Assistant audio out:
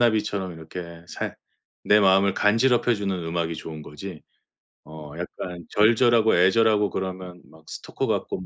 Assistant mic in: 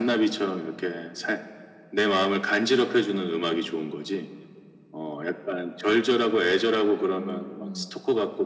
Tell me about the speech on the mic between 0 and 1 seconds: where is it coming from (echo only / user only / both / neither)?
echo only